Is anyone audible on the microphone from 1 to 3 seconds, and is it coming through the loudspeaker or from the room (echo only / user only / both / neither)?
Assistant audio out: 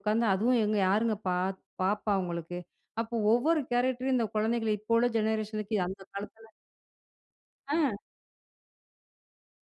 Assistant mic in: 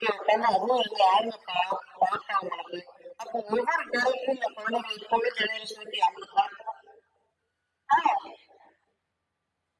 echo only